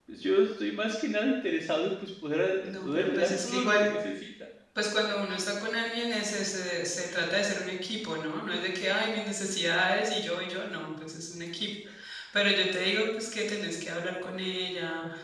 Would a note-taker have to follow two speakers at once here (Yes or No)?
Yes